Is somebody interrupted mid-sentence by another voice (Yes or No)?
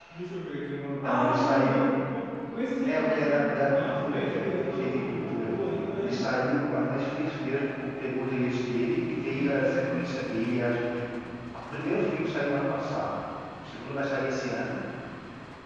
Yes